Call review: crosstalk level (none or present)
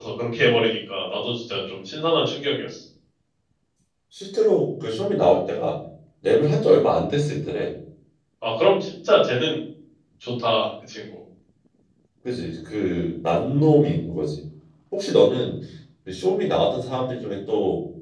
none